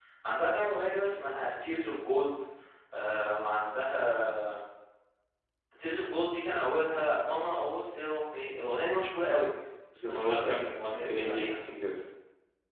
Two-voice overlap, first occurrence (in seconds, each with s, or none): 9.9 s